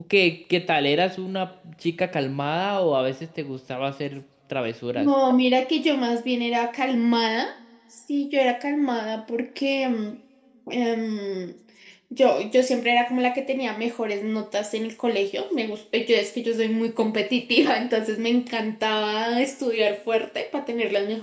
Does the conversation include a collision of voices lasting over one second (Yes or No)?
No